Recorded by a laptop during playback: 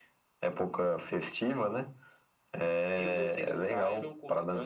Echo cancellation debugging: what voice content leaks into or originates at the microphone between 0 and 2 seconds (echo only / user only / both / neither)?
echo only